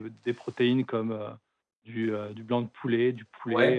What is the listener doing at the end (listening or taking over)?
listening